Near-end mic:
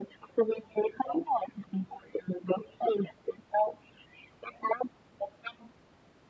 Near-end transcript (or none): none